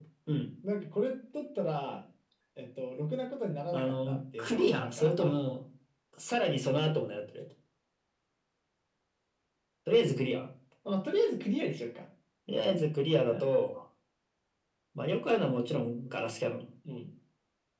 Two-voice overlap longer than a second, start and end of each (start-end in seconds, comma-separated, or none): 3.7-5.4